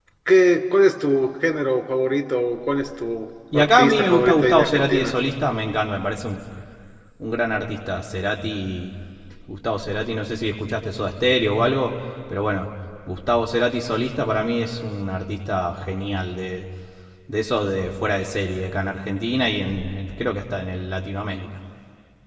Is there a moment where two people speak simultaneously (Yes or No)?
Yes